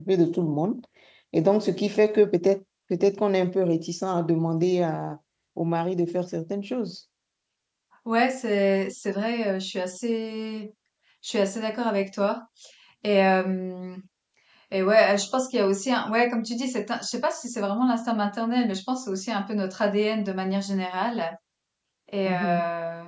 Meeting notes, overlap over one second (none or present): none